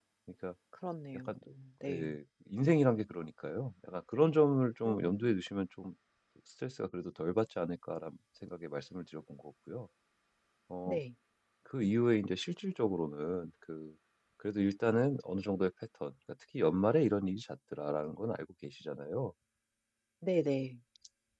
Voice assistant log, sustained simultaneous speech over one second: none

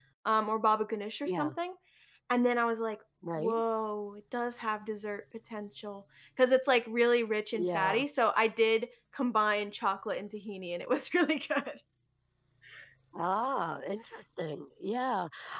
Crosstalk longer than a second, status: none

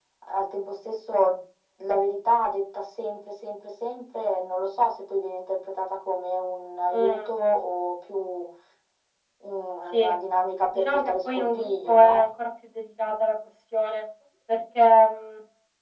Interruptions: present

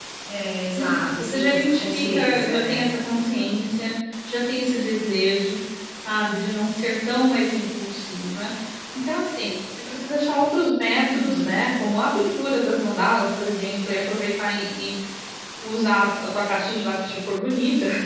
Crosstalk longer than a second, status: present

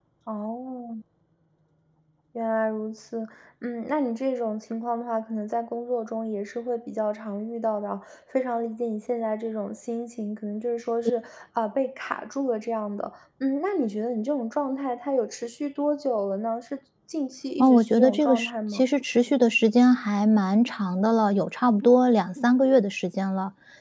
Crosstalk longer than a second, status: present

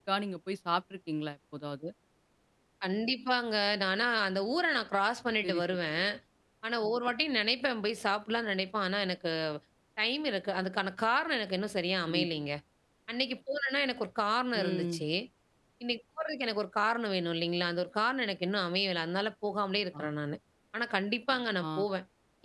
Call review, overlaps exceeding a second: none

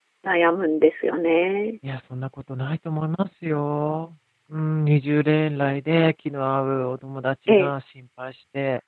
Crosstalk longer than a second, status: none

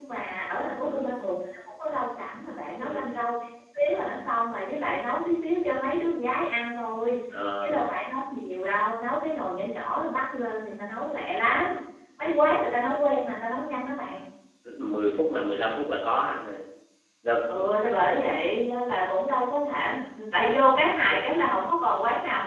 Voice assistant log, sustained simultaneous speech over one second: none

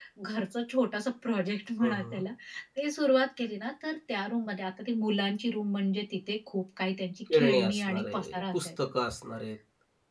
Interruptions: present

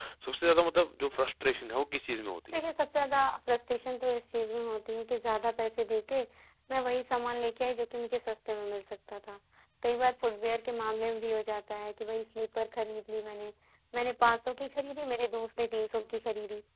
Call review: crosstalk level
none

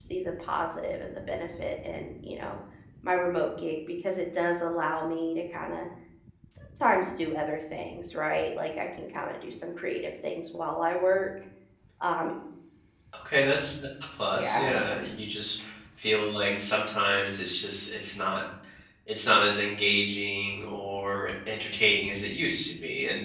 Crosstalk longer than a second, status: none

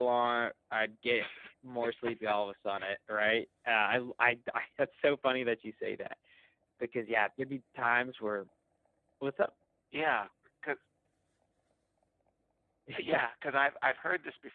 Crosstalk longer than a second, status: none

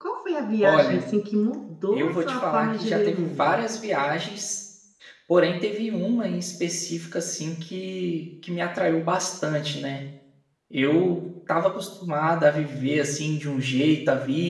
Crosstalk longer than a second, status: present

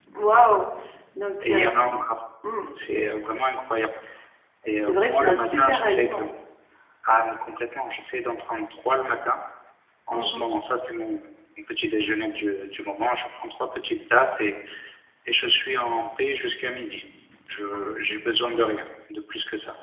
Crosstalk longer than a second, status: present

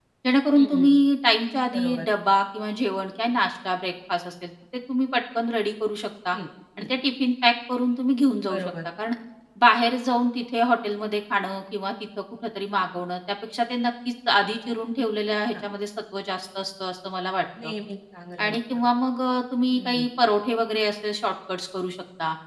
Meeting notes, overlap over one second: none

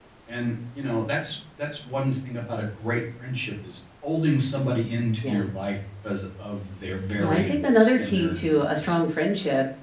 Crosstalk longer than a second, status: present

